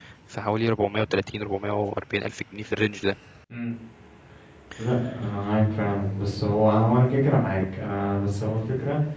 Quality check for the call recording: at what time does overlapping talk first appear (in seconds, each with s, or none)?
none